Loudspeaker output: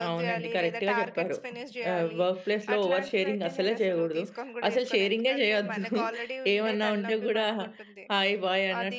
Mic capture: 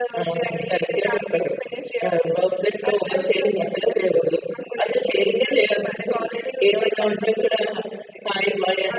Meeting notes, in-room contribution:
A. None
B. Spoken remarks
A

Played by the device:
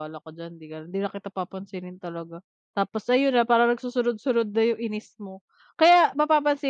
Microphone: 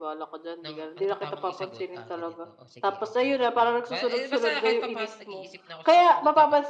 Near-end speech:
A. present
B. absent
A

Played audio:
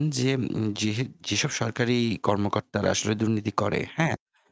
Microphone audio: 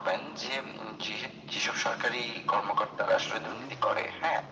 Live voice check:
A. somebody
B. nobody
B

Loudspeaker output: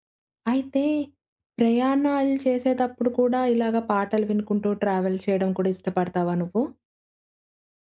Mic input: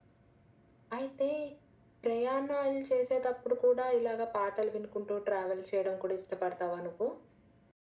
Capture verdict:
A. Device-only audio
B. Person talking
A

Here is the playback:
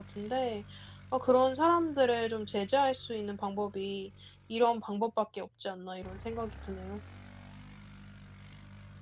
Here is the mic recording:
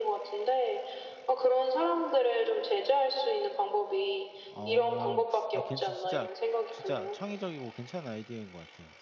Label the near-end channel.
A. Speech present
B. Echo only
A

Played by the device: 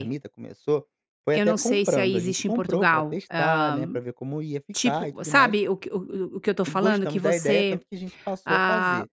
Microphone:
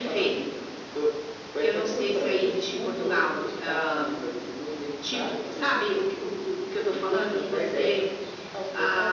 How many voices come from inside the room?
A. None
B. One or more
A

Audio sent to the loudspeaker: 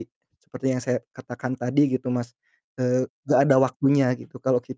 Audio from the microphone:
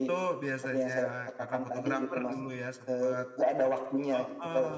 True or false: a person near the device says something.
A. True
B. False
A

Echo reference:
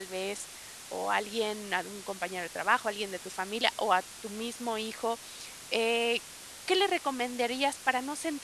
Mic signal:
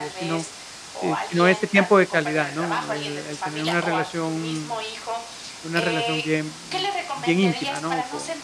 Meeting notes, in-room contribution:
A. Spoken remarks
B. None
A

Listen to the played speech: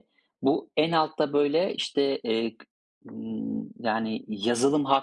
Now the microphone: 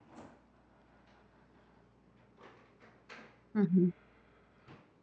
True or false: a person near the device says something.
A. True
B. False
A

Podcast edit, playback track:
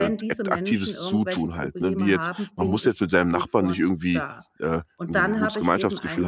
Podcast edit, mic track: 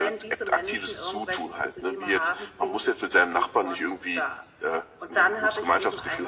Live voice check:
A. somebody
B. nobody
B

